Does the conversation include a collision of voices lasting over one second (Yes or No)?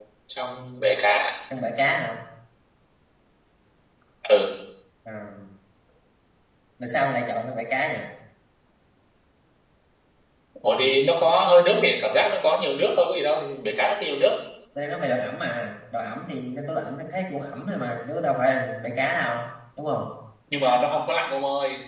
No